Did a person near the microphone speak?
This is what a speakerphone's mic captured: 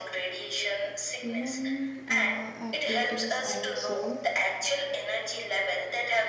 Yes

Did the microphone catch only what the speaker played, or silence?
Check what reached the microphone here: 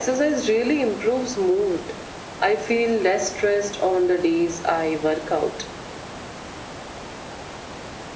Yes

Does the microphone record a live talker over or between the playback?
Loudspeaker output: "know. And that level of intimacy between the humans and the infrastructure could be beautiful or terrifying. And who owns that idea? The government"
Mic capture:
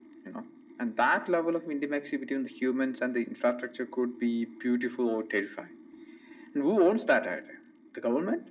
No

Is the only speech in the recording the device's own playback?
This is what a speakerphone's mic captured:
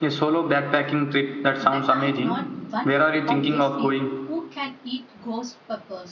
No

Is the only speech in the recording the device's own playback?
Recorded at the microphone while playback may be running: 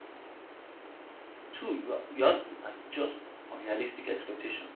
No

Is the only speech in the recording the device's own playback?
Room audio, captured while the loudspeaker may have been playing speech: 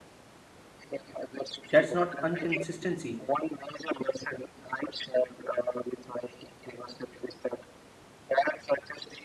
No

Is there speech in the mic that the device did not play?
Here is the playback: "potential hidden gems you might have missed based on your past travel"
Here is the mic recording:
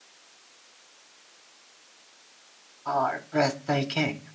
Yes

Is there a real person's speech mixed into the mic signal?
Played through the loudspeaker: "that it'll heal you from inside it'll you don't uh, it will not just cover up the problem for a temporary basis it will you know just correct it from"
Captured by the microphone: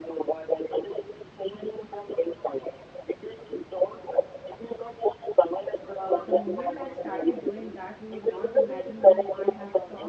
Yes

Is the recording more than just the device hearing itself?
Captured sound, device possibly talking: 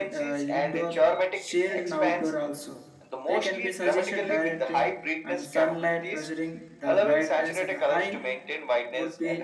Yes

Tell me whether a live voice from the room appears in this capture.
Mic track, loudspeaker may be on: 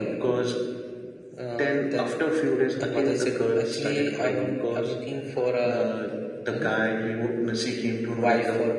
No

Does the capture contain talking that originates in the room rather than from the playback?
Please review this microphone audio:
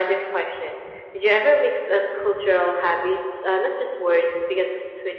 No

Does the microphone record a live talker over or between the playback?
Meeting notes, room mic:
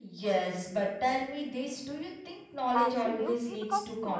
Yes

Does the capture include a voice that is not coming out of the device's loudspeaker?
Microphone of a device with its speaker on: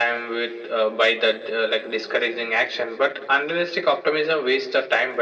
No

